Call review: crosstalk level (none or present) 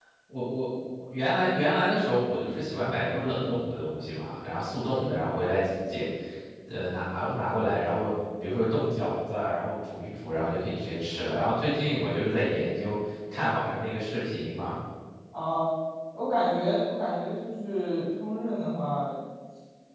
none